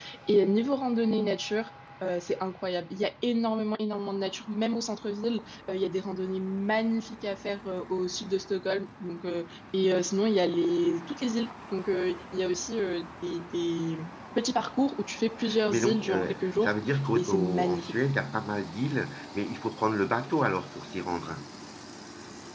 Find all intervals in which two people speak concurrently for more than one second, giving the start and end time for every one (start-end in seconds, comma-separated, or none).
15.7-18.0